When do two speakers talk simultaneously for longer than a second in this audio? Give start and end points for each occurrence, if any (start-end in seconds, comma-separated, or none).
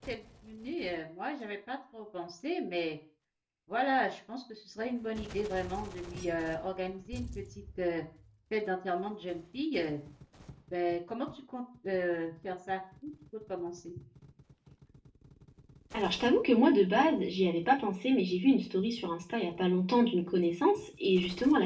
none